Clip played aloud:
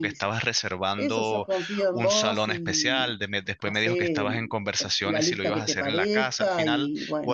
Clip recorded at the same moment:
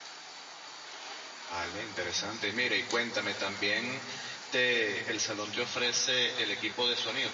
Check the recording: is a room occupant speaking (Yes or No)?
Yes